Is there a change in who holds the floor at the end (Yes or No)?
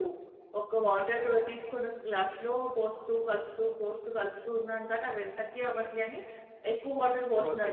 Yes